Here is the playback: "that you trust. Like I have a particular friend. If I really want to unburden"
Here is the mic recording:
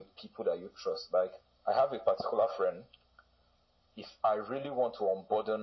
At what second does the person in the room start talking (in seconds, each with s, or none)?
none